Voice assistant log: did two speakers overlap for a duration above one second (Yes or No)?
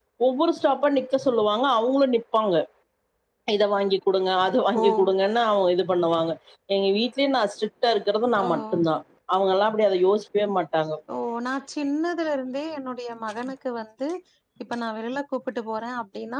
No